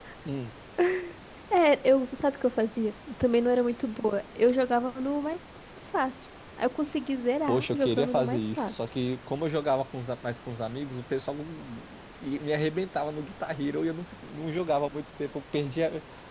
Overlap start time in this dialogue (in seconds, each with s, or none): 7.5 s